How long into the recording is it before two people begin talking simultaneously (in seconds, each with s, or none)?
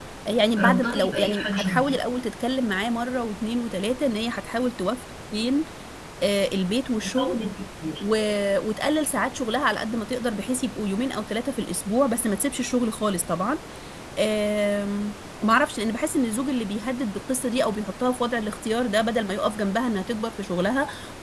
0.6 s